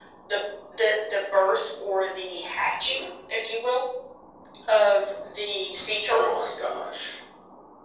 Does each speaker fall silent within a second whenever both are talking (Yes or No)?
Yes